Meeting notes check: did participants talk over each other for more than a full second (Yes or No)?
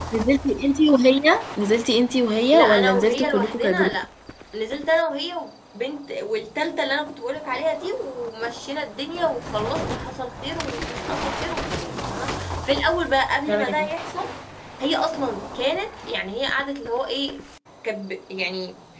Yes